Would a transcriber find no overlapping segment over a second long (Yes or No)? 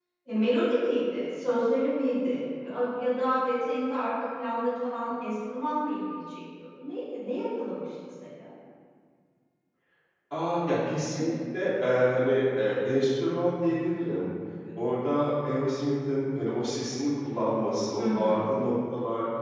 Yes